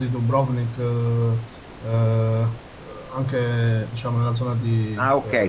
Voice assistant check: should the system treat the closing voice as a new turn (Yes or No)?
Yes